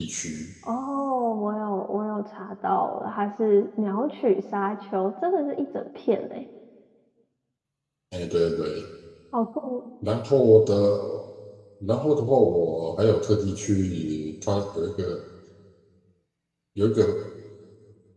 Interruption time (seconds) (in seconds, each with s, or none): none